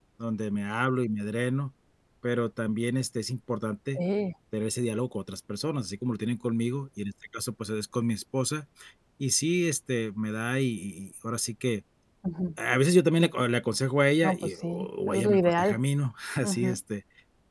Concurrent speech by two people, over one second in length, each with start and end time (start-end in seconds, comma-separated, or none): 14.2-15.8